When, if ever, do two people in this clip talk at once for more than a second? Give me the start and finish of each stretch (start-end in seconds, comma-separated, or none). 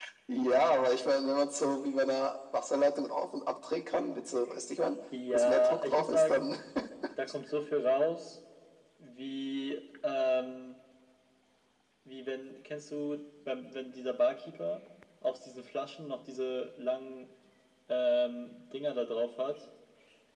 5.3-6.5